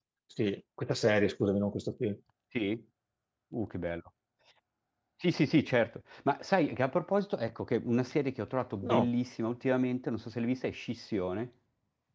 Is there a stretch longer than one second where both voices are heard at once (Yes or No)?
No